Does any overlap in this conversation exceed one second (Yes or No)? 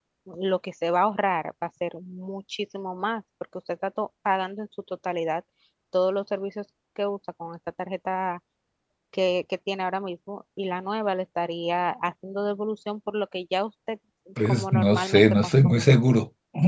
Yes